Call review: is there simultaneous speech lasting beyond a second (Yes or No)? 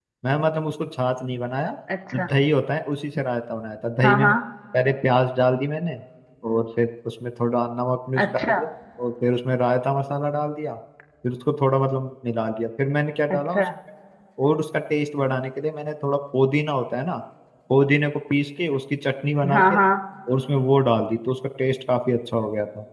No